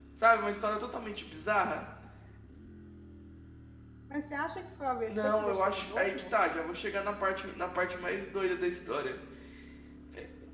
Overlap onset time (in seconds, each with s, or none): 5.1 s